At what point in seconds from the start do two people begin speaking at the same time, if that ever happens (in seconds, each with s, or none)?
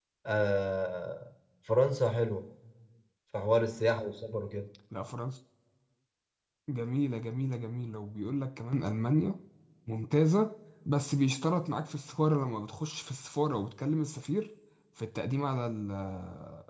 none